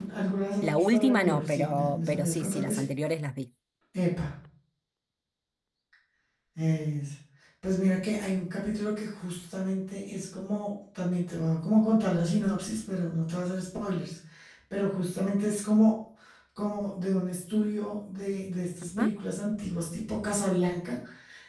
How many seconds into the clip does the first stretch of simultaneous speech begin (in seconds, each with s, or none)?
0.6 s